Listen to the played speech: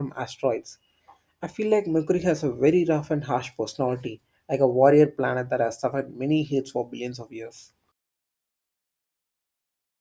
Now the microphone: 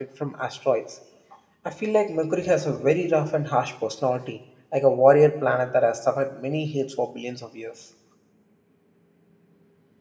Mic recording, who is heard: echo only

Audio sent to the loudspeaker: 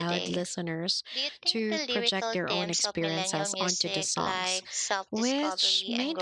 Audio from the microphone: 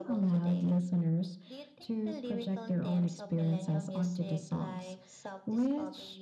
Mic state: echo only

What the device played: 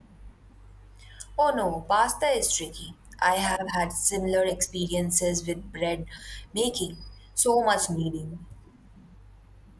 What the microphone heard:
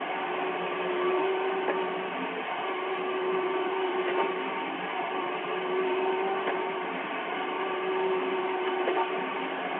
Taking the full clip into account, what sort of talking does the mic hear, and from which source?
neither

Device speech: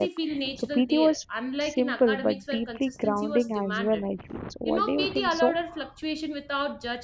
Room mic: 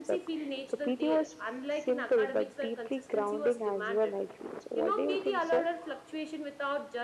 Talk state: echo only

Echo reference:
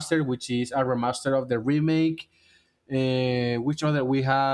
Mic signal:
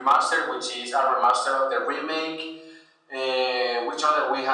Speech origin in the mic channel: echo only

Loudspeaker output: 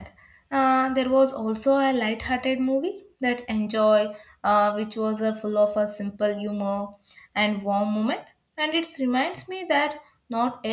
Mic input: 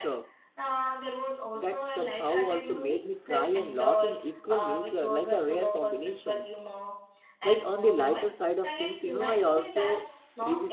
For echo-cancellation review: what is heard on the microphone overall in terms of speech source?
both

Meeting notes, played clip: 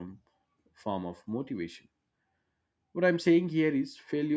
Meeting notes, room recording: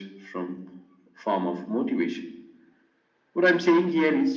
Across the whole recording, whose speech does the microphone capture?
echo only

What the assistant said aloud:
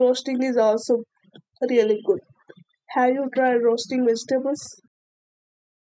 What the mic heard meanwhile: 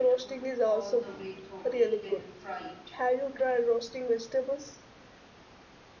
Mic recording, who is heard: both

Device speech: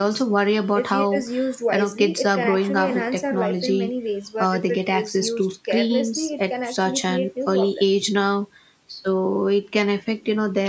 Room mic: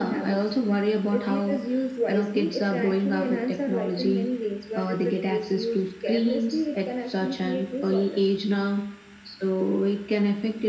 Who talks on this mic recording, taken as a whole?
echo only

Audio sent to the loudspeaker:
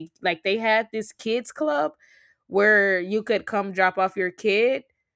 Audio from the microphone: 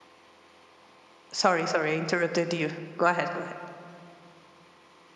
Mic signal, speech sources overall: user only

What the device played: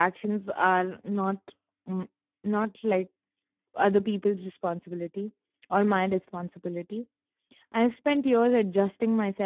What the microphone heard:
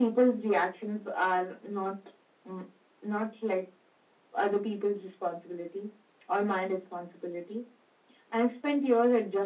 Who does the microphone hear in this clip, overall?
echo only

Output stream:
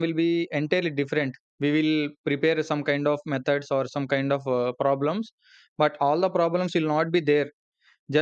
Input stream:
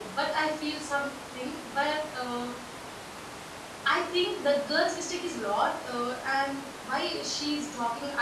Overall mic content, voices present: user only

